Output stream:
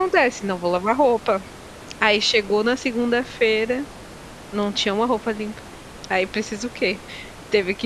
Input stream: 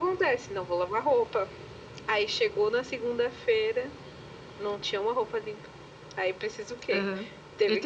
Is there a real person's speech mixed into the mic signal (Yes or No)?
Yes